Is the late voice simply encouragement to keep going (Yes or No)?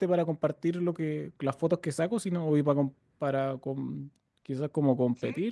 Yes